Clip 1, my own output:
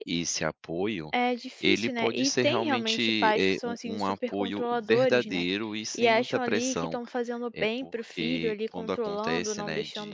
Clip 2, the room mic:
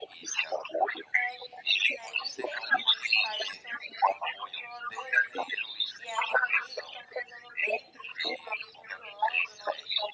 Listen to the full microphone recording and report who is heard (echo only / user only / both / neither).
echo only